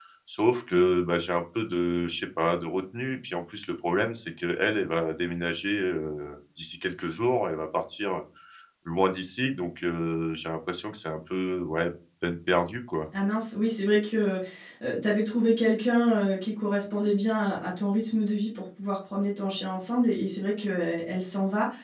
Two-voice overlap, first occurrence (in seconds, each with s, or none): none